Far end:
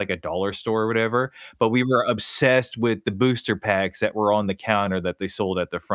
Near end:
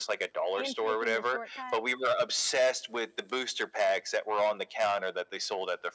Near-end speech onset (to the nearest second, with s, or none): 1 s